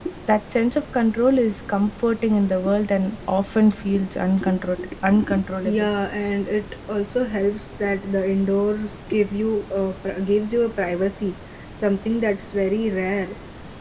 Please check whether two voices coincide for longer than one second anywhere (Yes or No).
No